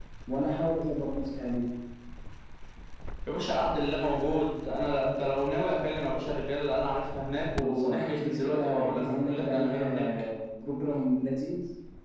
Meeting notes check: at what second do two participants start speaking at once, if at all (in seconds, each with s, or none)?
7.6 s